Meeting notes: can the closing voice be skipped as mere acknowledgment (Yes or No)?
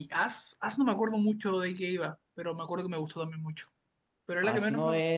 No